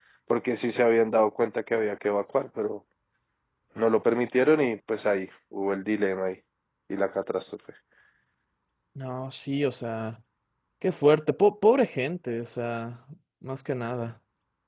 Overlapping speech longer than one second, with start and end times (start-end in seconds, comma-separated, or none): none